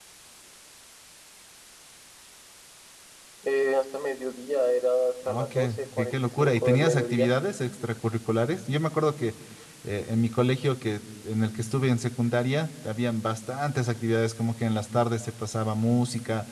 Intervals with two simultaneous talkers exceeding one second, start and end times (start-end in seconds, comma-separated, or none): 5.2-7.3